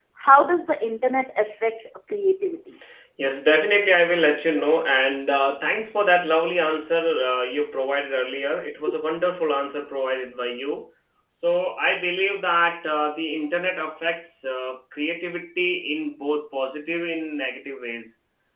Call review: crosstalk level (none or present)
none